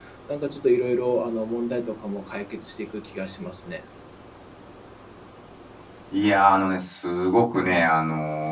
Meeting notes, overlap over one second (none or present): none